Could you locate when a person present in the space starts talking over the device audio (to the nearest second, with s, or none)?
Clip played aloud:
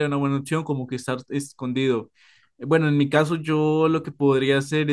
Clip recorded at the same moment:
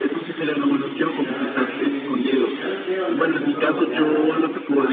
1 s